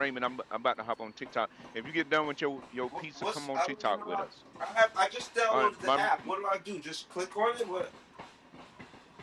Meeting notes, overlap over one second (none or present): present